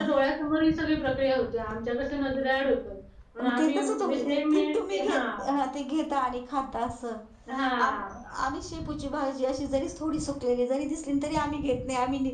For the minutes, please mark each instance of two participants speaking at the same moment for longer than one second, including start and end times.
3.4-5.2

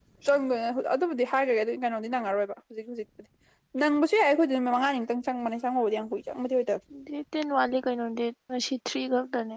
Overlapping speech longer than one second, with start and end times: none

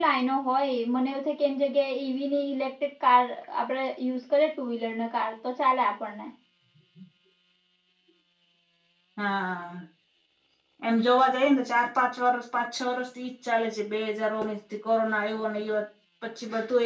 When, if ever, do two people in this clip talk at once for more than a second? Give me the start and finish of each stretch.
none

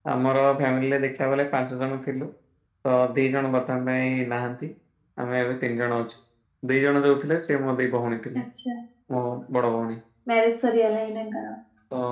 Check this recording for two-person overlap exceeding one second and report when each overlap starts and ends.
none

